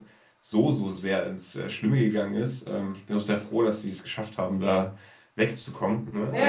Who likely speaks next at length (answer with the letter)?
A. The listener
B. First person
A